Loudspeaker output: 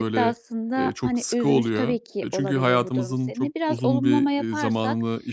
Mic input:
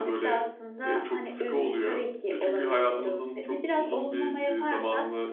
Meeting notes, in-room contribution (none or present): none